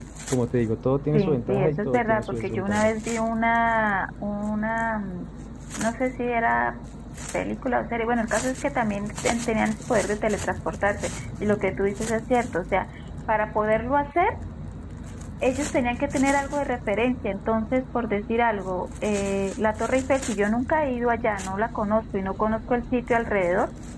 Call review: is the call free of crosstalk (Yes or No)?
No